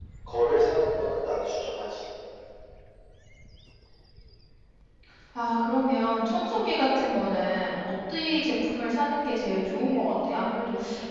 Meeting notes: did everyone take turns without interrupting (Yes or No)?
Yes